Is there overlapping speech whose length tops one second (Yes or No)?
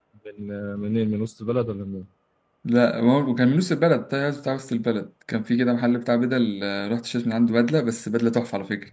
No